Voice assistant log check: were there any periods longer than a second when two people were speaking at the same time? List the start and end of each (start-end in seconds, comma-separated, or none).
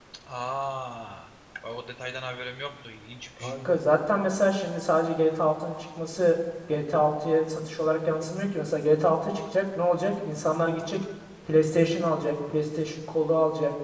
none